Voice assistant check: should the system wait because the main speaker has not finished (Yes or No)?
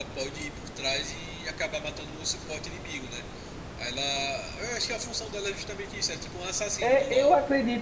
No